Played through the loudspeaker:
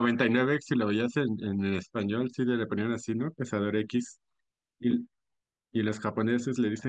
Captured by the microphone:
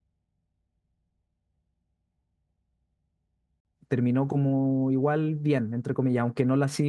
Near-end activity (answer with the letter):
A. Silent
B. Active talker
B